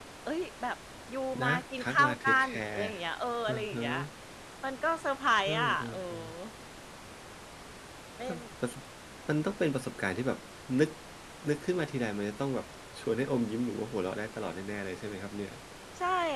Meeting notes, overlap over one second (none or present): present